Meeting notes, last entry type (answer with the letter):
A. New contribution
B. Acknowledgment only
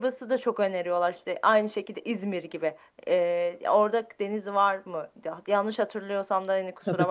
A